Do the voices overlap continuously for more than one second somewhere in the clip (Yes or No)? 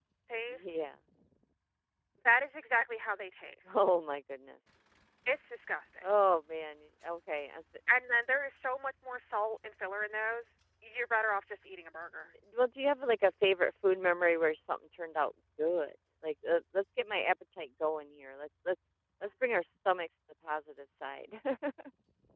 No